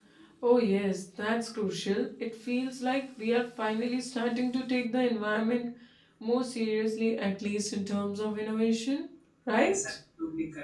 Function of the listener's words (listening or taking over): taking over